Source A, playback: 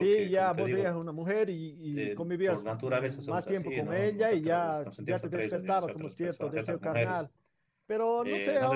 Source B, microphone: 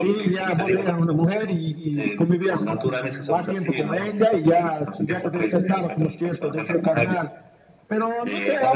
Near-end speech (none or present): none